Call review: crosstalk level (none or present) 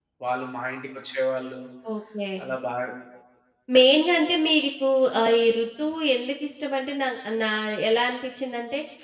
none